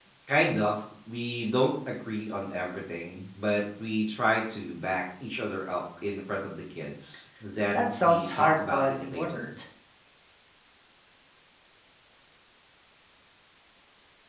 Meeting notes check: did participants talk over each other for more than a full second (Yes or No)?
Yes